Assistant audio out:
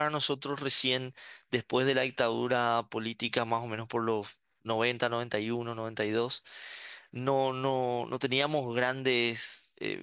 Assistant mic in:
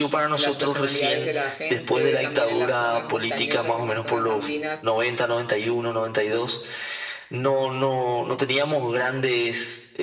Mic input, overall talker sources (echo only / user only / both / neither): both